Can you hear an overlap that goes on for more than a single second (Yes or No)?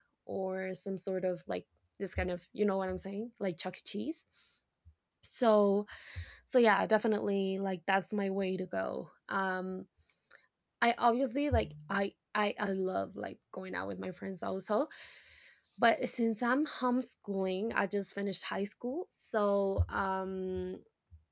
No